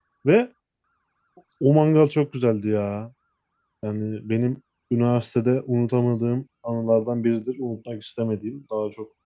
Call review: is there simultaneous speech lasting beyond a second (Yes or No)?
No